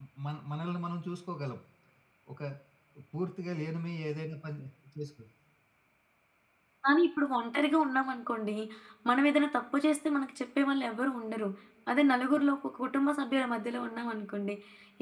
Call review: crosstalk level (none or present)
none